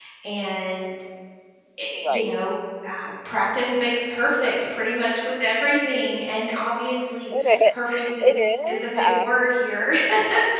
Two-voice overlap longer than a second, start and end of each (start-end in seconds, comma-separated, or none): 7.7-9.4